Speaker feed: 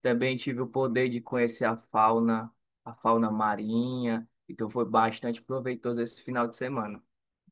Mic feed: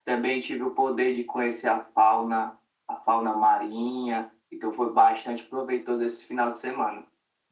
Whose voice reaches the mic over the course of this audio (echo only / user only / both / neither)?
echo only